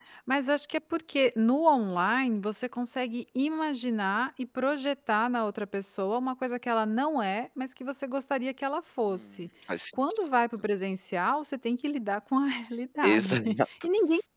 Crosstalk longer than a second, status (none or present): none